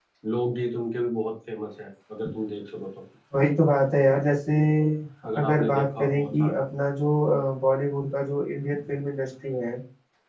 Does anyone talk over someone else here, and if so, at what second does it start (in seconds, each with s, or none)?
5.4 s